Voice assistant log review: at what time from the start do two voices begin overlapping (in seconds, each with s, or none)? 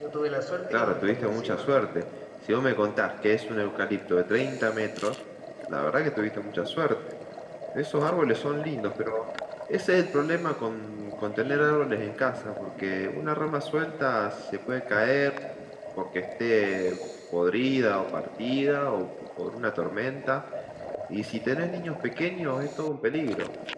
0.7 s